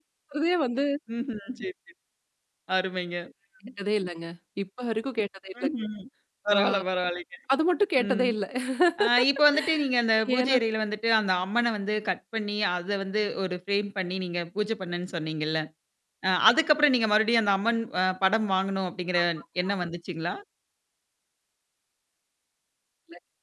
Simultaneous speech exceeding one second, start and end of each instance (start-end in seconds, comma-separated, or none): none